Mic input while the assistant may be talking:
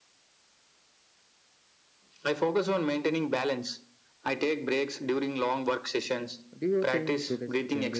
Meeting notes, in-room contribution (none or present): present